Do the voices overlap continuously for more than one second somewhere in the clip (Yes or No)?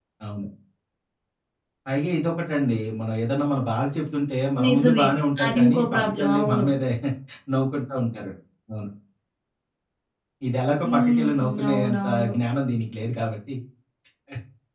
Yes